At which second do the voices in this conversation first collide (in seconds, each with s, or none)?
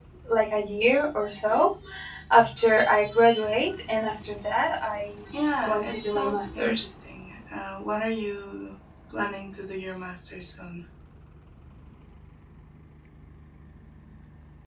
5.6 s